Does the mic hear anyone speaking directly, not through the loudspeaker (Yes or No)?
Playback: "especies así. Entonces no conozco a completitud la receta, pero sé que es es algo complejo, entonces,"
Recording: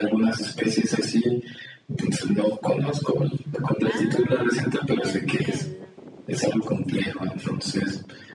Yes